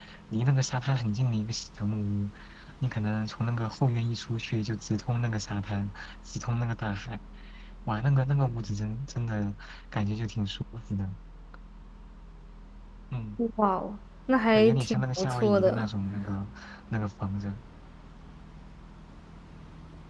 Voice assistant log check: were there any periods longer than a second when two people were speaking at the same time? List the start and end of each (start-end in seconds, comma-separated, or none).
14.6-15.9